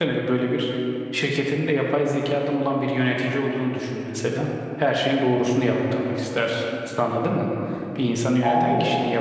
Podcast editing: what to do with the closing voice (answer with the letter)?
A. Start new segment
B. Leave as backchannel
B